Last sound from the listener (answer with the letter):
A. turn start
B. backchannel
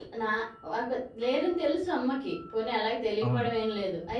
B